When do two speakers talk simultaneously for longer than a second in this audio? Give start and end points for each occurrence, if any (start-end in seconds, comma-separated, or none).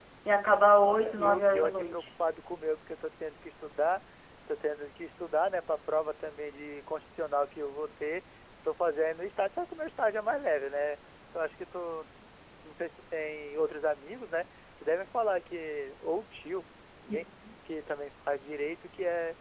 0.8-2.0